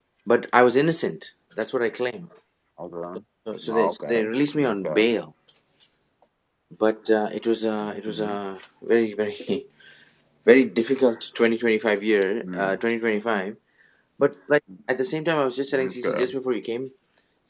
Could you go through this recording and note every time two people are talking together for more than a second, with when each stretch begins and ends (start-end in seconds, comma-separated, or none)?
3.6-5.0